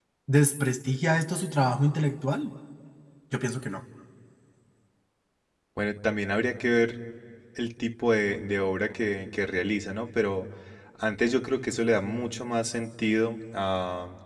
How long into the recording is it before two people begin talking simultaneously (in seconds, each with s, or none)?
none